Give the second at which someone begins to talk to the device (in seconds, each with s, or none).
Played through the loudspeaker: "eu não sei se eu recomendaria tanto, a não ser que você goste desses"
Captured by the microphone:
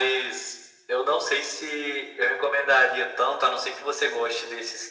none